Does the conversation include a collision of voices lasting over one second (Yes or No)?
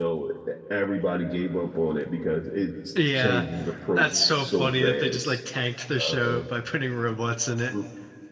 Yes